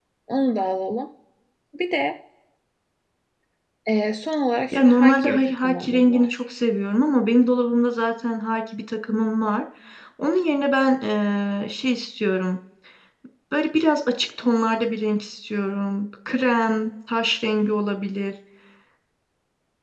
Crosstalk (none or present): present